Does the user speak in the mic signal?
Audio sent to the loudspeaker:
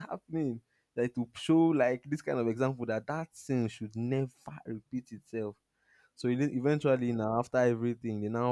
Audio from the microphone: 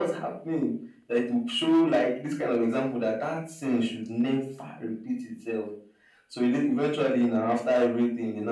No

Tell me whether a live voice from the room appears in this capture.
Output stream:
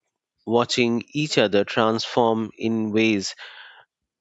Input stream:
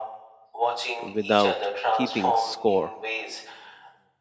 Yes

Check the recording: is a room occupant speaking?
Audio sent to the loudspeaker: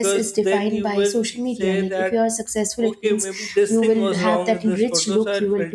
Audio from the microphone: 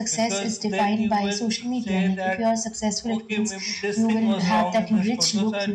No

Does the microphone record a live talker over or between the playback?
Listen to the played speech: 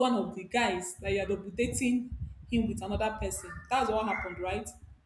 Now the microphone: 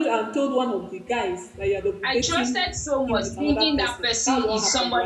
Yes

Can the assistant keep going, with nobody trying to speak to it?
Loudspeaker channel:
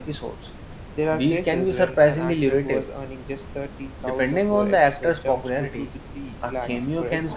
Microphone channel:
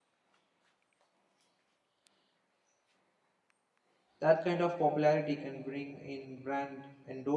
No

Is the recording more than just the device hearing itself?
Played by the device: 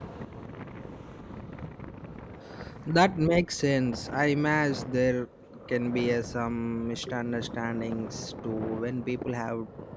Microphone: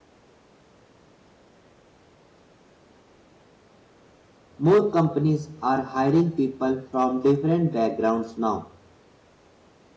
Yes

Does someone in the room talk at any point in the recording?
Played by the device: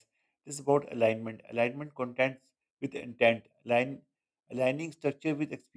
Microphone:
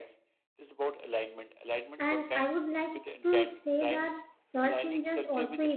Yes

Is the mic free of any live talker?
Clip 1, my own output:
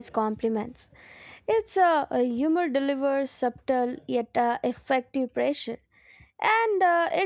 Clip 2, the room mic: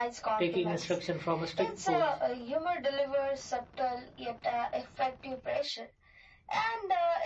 No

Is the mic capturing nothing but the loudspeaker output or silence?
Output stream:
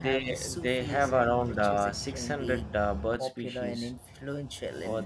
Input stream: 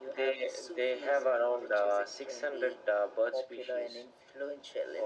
Yes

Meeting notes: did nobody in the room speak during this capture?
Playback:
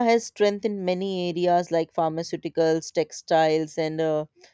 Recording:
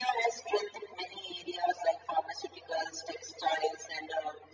Yes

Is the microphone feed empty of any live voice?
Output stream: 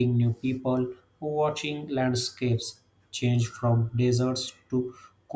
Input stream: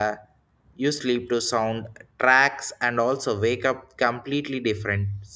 No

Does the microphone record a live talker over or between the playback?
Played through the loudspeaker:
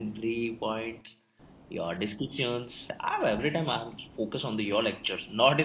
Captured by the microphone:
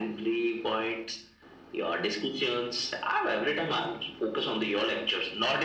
No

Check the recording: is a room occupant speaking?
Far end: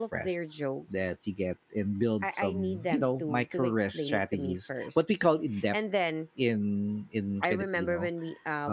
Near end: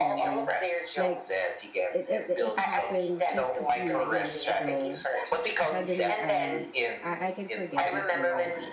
Yes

